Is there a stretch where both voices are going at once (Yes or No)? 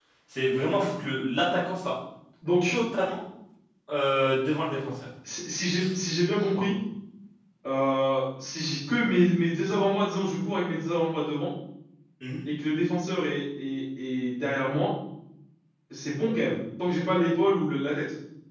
No